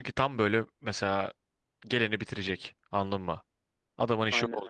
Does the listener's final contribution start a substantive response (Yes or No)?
Yes